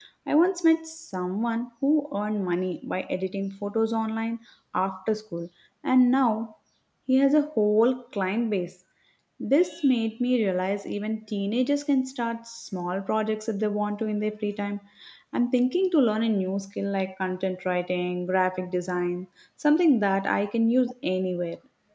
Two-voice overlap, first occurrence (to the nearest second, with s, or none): none